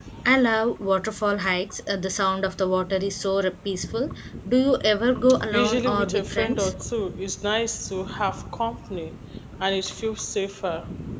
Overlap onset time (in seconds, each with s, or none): 5.5 s